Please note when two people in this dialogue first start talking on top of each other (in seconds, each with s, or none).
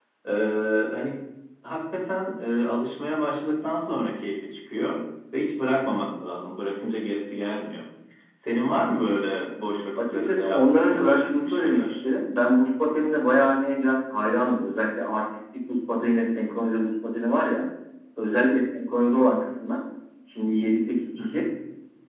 10.0 s